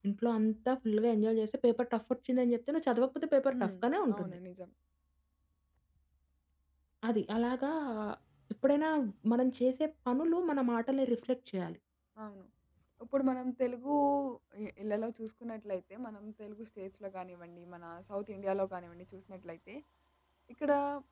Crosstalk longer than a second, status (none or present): none